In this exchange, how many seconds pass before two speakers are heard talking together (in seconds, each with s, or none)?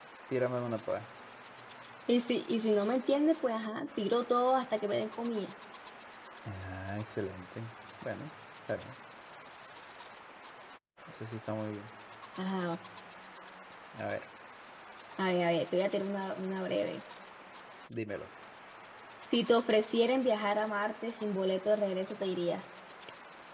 none